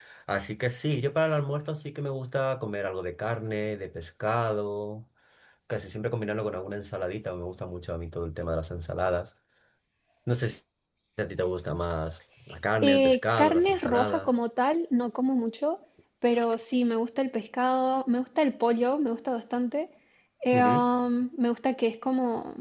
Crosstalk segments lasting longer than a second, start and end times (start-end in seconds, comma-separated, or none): 12.8-14.3